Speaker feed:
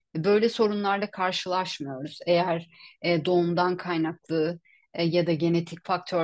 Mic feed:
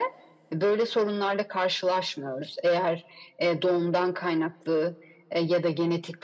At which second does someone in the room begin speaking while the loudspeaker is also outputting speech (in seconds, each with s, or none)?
none